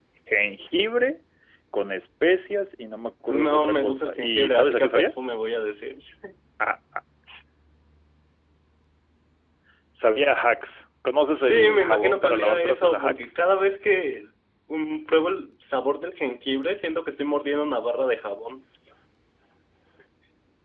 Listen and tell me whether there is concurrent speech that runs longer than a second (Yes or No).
Yes